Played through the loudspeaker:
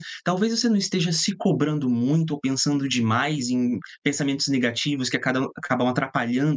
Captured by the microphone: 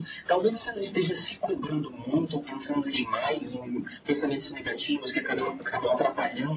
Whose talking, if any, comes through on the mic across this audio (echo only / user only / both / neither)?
both